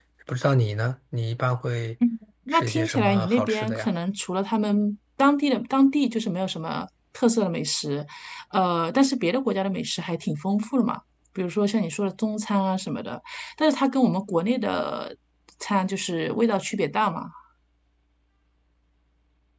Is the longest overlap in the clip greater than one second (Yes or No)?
Yes